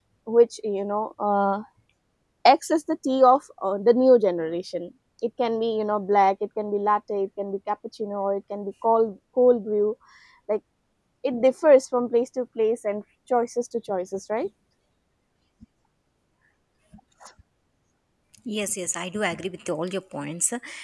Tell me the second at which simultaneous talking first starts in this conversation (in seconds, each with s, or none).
none